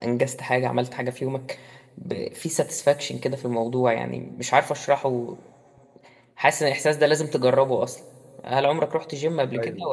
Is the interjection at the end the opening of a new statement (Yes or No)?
No